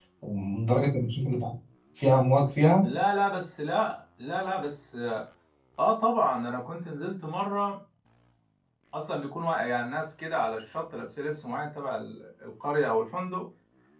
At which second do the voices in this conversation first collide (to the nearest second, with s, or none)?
none